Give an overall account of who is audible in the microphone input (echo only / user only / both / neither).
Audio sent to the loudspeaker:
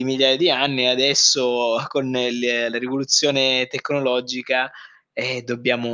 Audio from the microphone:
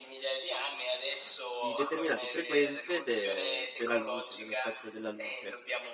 both